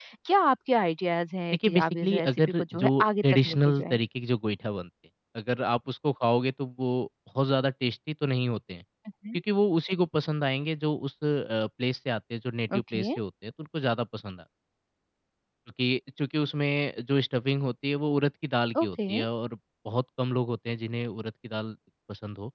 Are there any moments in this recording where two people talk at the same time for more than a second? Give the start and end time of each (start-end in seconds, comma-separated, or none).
1.7-4.0